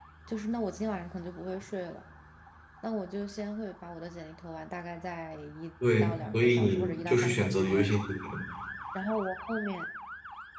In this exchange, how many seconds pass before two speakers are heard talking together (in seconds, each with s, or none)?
5.8 s